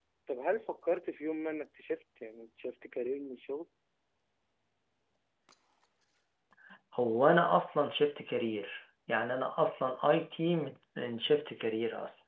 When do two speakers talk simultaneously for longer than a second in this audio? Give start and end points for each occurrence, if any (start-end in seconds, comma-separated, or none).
none